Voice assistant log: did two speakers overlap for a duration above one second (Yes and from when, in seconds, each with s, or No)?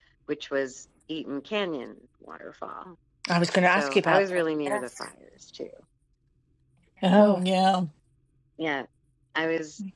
Yes, from 3.6 s